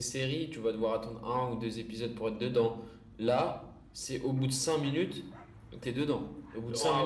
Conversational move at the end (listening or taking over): taking over